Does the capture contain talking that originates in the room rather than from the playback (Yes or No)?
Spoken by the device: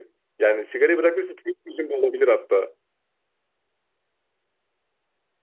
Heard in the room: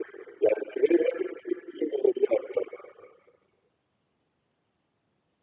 No